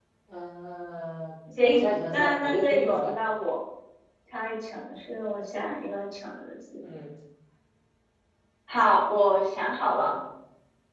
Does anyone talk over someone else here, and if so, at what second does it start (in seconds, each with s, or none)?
1.6 s